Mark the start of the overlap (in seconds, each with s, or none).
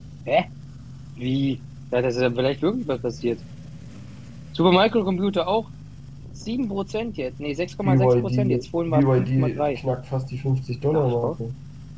7.8 s